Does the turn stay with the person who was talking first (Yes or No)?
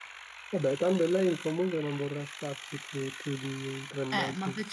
No